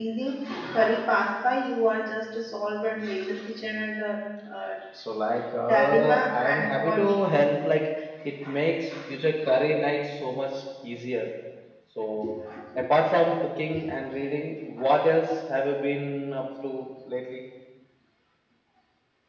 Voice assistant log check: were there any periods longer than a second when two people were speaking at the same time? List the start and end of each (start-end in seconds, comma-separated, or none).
5.6-7.2